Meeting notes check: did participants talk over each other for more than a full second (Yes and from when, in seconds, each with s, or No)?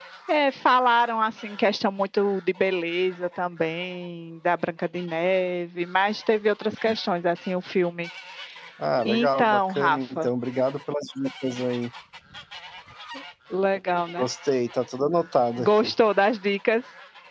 Yes, from 9.0 s